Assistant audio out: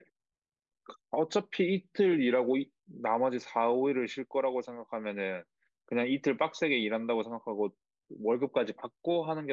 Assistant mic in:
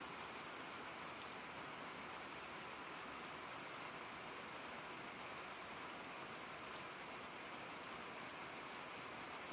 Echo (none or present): none